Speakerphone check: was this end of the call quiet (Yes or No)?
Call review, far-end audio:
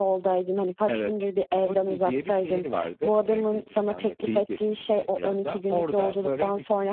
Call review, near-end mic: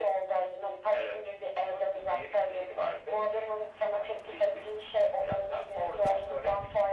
Yes